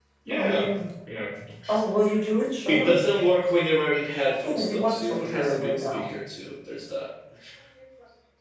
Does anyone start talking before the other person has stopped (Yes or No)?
Yes